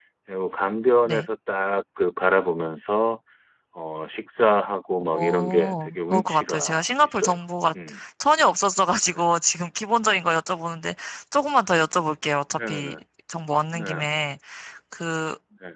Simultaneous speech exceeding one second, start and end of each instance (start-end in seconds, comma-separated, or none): 5.1-7.3